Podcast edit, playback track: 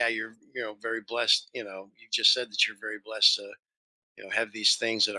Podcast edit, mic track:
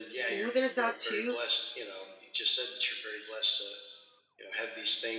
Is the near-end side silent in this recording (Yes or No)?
No